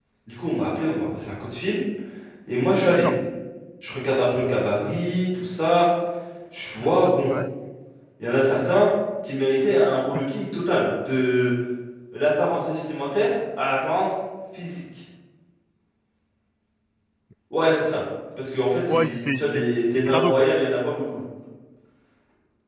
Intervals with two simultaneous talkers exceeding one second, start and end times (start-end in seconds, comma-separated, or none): 18.9-20.4